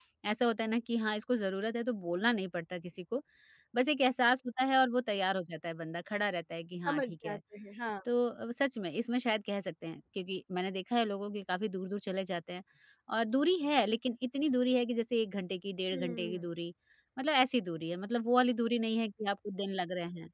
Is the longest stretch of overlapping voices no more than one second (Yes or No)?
Yes